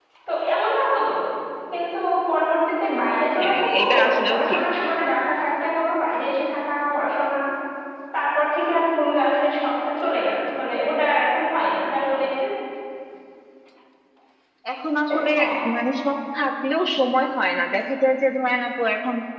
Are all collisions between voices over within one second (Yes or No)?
No